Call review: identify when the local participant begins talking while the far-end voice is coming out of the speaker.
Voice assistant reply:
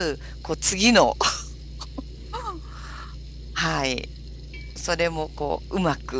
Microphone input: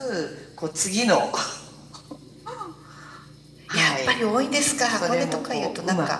3.7 s

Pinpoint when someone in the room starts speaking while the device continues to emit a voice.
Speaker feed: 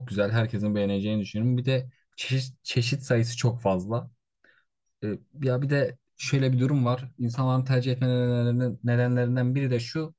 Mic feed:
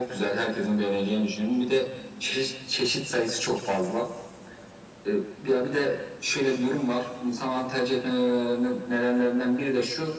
none

